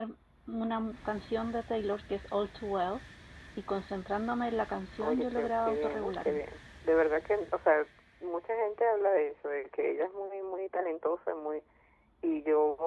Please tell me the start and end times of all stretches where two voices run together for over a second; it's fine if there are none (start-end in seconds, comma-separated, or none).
5.0-6.4